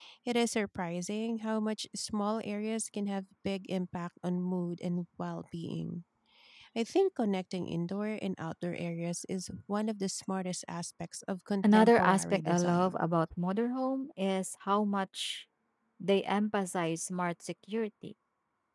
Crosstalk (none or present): present